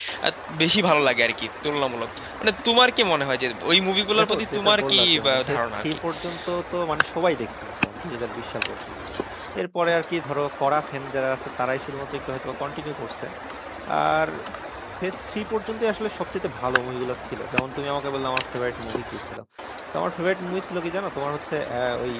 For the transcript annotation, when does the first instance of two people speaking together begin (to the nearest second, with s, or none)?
4 s